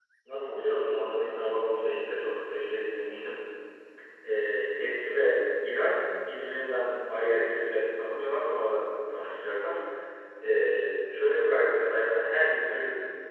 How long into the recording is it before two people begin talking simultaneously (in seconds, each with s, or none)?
none